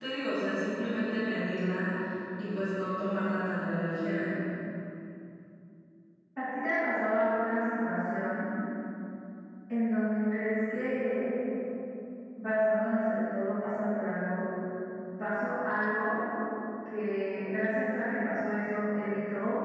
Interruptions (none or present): none